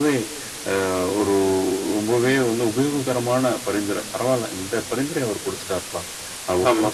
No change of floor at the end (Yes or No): Yes